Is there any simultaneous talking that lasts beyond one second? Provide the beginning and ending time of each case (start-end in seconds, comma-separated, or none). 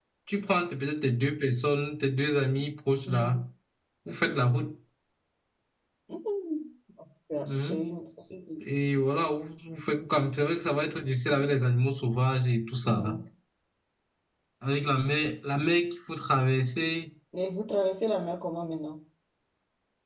none